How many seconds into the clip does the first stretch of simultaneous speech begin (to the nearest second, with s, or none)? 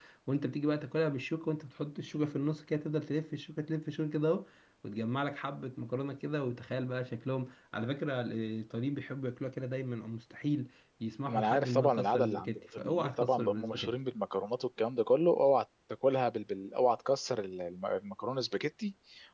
11 s